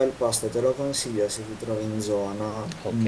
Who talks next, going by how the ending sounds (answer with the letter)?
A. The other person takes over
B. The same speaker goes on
A